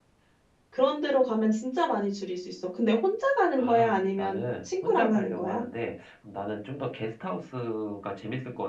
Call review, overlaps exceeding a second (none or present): present